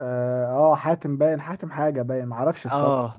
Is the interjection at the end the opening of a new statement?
Yes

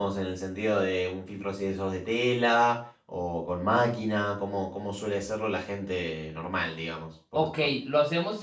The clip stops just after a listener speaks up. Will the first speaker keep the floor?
No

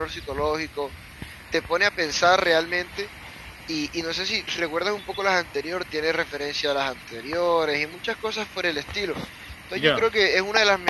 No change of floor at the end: Yes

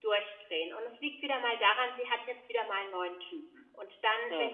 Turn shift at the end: No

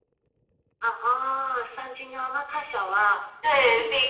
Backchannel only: No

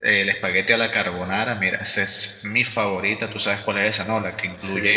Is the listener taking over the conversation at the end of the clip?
No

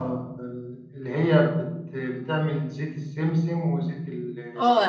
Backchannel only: No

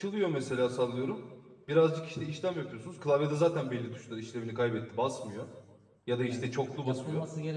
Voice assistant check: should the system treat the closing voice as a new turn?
Yes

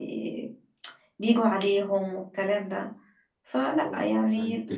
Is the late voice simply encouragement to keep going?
No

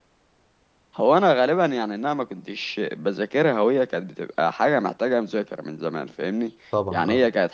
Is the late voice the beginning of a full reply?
No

